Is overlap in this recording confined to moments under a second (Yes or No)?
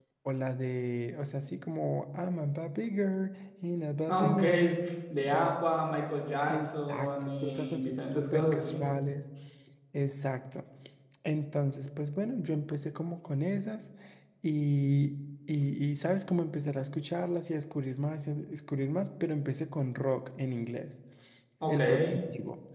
No